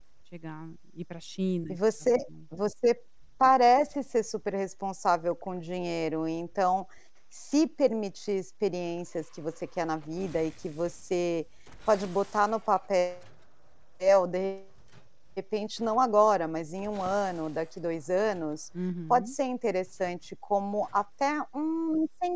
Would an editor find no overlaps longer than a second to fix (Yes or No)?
Yes